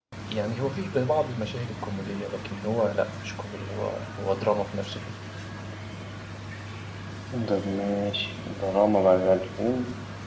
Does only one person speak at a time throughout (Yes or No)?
Yes